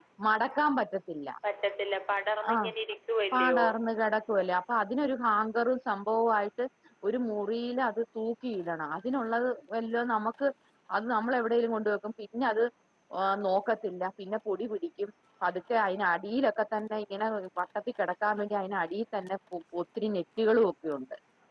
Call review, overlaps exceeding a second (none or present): none